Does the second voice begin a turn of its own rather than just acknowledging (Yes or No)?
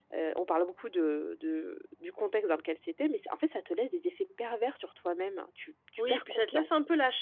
Yes